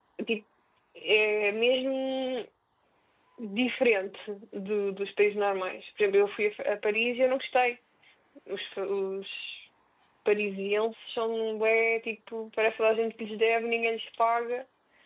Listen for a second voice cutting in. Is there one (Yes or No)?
No